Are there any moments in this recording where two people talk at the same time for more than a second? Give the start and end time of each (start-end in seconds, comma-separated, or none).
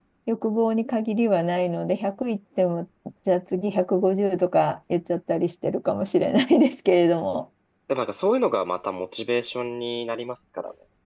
none